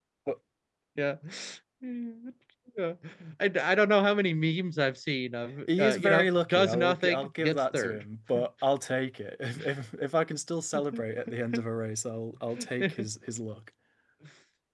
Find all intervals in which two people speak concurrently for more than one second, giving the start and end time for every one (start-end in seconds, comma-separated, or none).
5.8-8.1